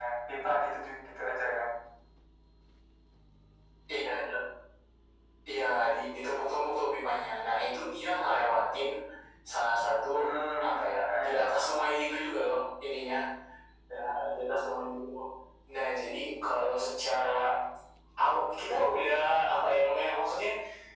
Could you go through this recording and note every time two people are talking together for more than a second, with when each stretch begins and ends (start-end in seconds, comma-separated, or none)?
10.6-11.9